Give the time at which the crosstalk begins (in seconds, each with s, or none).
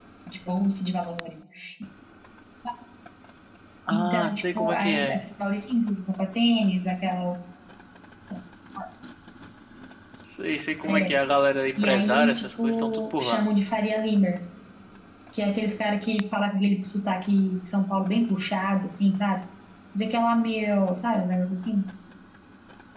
3.9 s